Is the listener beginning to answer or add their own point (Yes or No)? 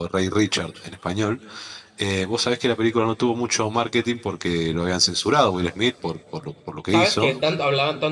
Yes